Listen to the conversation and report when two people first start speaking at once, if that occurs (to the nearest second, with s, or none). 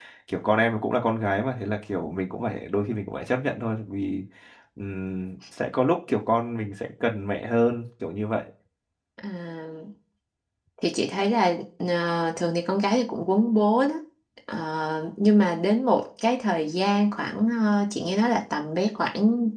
none